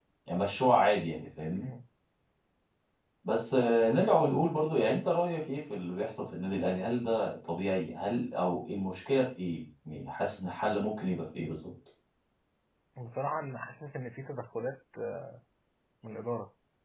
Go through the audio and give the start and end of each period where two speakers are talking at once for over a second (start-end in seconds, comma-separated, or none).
none